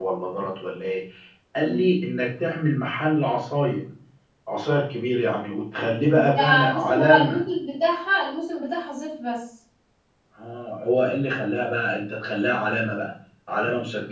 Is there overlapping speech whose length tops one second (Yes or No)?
Yes